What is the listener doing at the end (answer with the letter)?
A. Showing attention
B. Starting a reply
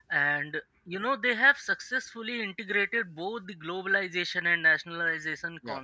A